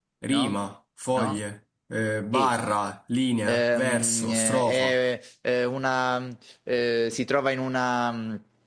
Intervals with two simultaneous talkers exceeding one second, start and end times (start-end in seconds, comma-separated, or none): 3.5-5.0